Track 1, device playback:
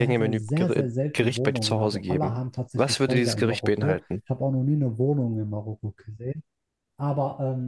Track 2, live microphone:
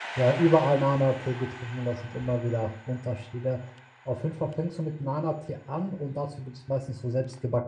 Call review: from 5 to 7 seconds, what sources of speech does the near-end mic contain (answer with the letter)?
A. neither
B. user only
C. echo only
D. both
B